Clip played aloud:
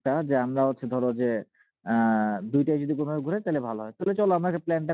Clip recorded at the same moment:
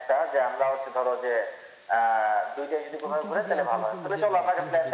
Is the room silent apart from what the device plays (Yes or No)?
No